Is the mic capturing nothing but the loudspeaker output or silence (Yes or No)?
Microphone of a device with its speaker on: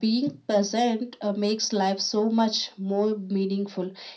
Yes